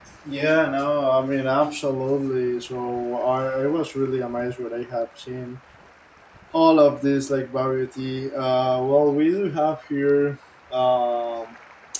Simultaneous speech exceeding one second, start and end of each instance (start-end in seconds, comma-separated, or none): none